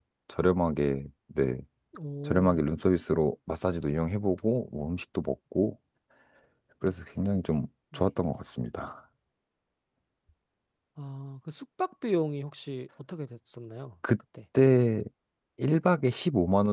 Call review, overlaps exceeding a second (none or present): none